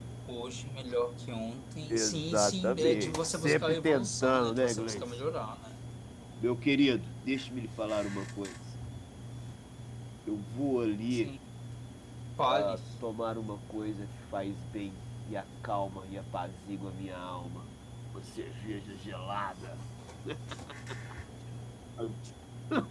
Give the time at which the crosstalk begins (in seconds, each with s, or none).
1.9 s